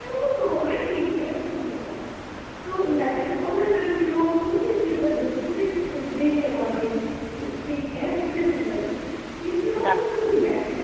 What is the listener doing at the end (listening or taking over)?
listening